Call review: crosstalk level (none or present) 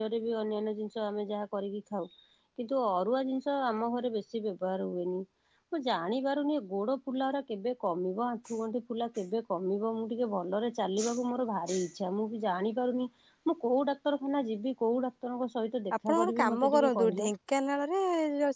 present